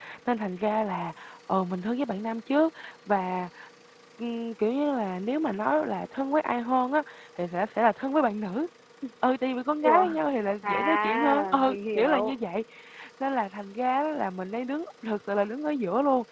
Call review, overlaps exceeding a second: present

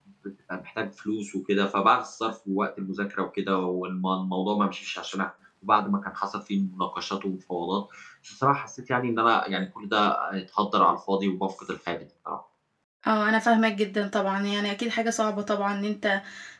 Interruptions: none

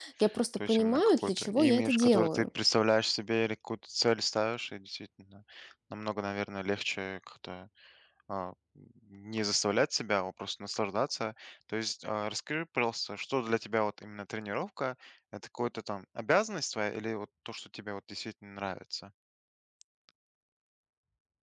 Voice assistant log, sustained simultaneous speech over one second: present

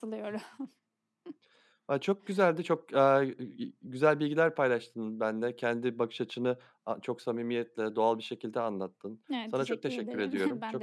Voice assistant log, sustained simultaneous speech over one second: present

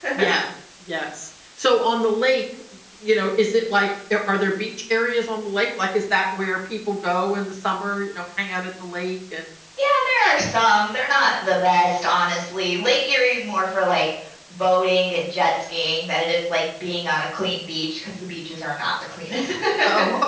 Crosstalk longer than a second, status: none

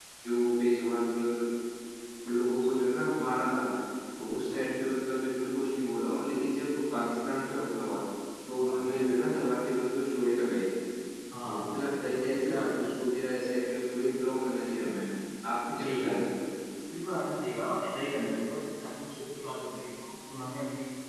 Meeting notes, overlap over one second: present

